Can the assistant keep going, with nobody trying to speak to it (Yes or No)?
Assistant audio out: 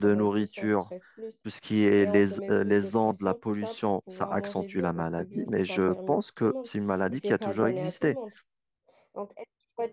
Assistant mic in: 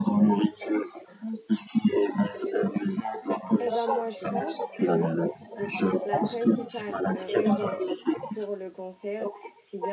No